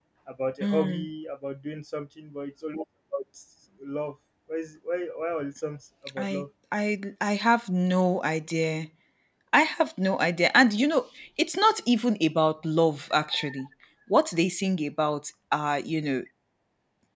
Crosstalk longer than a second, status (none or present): none